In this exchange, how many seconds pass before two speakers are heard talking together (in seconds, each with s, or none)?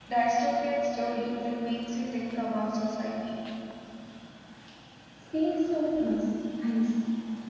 none